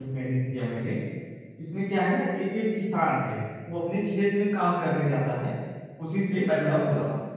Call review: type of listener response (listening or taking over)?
taking over